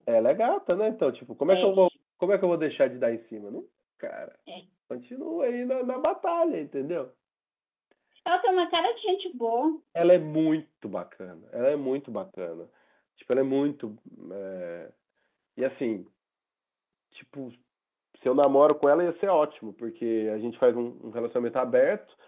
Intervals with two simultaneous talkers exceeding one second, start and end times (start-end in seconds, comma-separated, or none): none